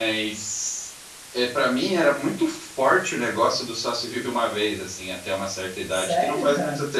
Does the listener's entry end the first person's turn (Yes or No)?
No